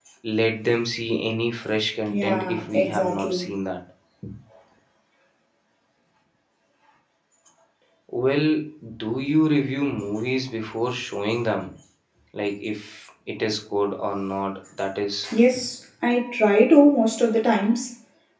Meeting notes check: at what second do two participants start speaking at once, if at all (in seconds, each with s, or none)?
2.1 s